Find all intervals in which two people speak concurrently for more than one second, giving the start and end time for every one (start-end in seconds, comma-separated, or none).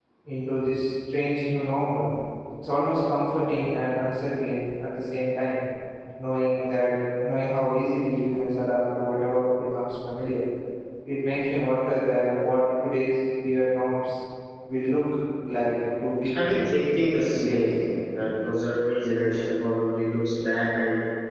16.3-17.7